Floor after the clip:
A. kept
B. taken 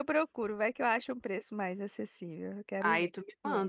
B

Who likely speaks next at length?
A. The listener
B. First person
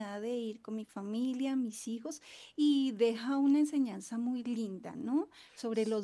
B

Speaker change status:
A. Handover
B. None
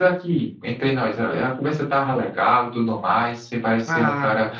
B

